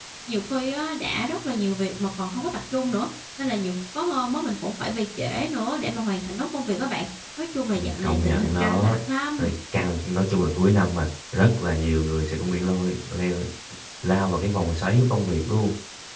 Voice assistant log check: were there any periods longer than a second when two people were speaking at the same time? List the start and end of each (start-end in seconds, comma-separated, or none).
7.7-8.9